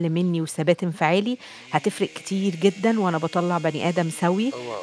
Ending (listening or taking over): listening